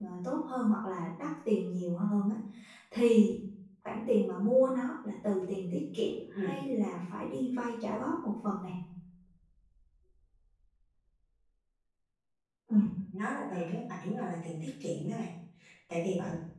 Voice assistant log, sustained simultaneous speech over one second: none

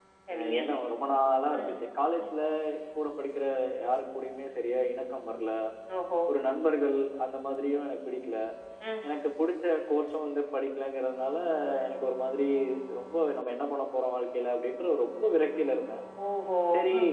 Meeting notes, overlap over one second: none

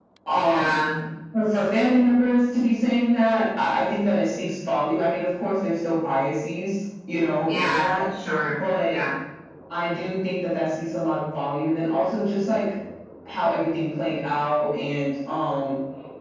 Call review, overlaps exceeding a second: none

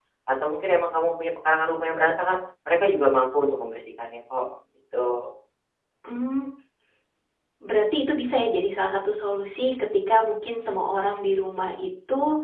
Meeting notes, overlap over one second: none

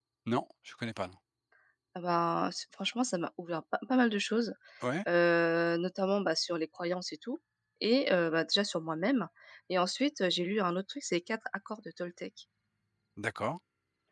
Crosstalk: none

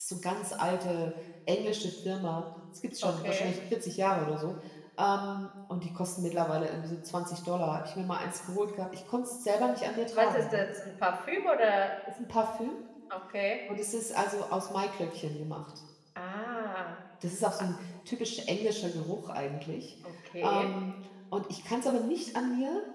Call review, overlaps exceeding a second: none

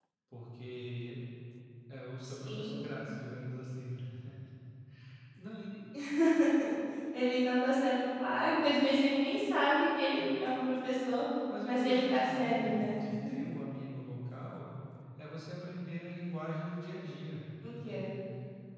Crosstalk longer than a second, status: present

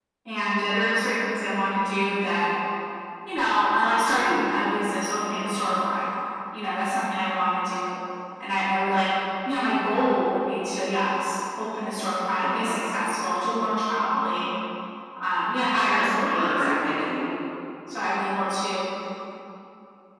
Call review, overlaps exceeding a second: present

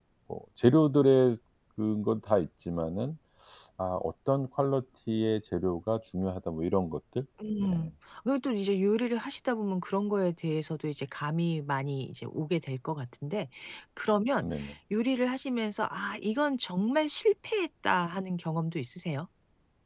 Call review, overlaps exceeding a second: none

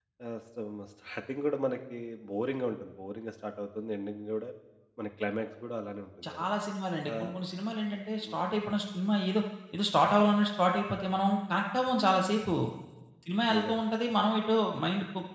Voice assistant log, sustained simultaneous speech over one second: none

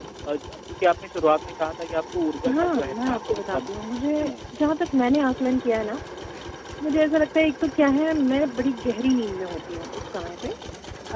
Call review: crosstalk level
present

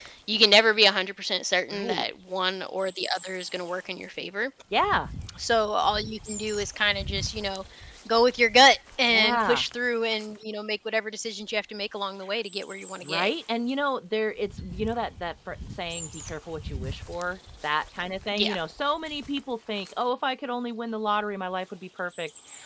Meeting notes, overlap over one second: none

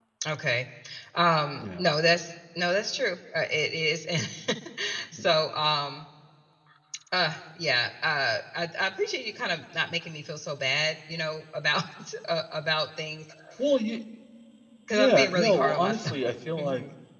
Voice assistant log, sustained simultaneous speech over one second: present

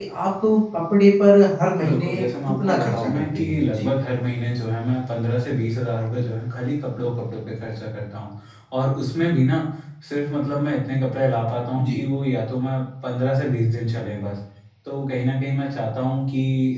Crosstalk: present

